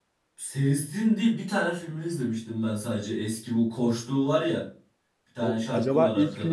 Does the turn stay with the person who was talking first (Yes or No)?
No